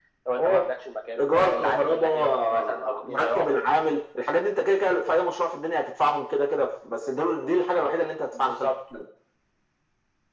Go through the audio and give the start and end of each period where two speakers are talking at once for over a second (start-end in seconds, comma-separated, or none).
1.2-3.6